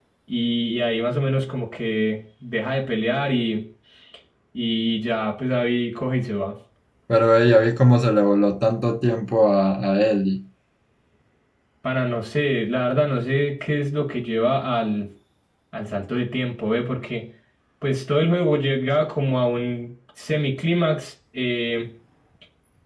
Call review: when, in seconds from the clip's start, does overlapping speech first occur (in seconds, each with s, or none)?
none